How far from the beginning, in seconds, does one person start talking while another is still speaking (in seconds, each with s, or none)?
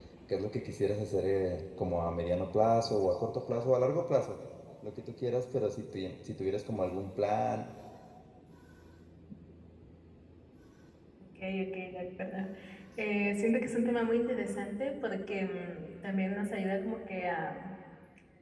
none